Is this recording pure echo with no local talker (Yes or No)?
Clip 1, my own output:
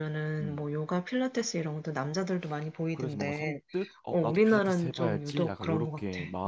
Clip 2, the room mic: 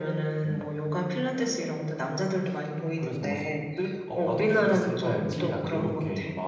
Yes